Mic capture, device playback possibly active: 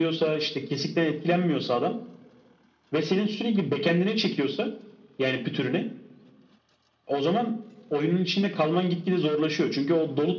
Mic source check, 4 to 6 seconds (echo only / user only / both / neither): echo only